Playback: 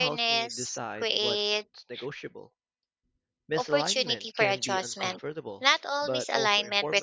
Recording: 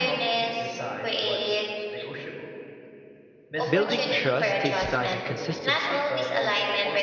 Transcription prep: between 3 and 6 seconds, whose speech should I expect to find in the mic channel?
both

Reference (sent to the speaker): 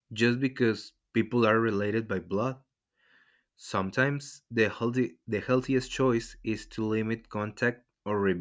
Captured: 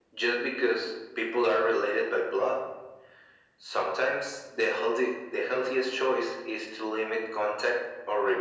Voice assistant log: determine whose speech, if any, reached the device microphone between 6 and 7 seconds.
echo only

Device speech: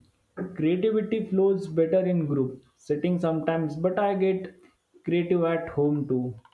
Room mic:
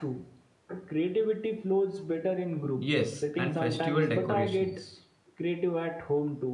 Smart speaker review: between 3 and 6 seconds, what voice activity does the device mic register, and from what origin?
both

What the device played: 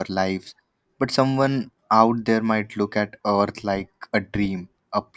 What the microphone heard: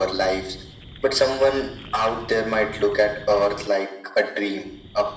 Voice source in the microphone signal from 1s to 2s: echo only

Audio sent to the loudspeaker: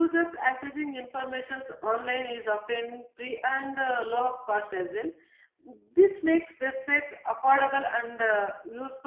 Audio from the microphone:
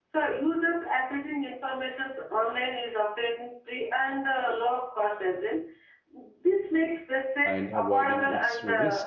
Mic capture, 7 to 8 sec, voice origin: both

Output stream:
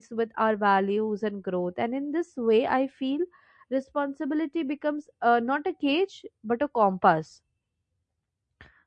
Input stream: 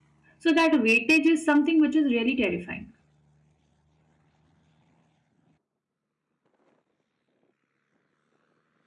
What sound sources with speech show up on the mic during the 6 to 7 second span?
neither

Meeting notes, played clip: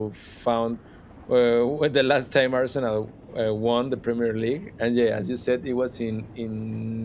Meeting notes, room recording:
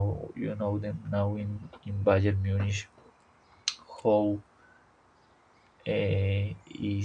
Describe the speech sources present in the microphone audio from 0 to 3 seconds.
user only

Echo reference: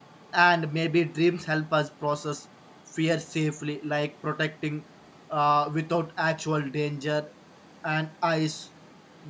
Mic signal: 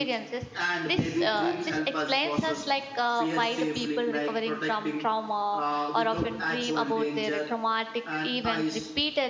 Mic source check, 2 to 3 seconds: both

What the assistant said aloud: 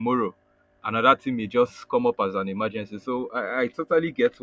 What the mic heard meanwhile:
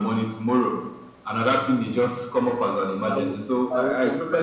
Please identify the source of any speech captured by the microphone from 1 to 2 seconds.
echo only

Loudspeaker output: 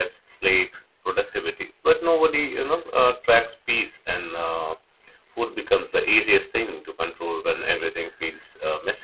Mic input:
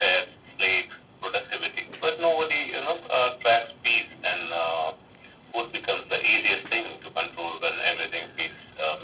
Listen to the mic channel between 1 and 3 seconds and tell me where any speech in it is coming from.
echo only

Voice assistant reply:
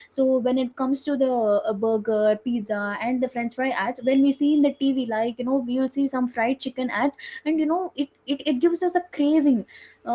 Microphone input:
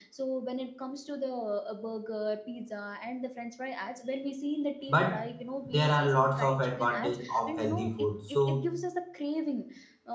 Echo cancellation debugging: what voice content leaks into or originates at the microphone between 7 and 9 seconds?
both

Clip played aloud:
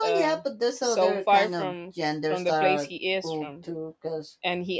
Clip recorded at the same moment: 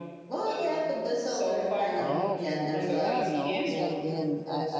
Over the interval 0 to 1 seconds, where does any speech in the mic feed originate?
echo only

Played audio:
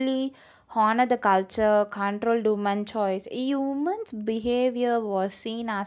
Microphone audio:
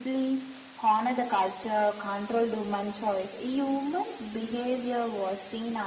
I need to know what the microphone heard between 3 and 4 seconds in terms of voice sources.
echo only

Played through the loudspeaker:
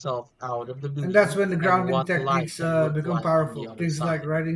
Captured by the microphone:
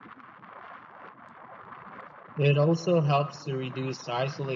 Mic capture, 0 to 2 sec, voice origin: neither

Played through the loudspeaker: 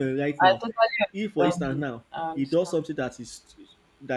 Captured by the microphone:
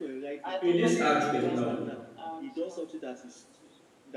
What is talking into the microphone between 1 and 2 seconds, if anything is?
both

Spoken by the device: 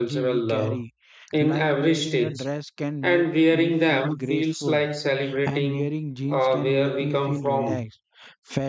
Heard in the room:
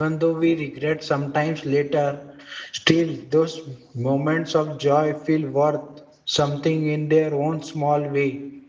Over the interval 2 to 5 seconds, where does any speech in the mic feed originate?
user only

